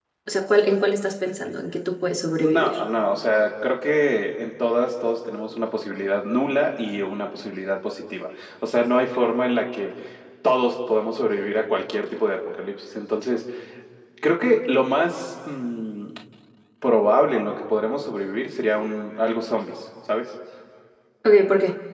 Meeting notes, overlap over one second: none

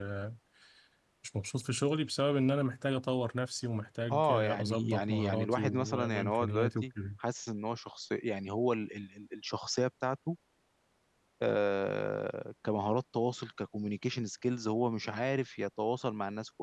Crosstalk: present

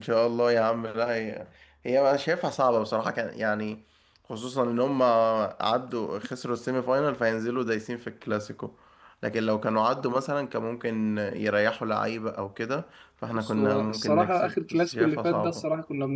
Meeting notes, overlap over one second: present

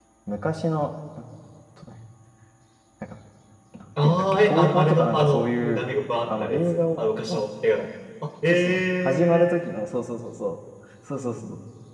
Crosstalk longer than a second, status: present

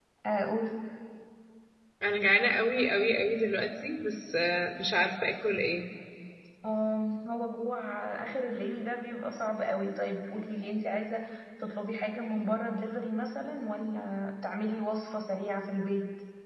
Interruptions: none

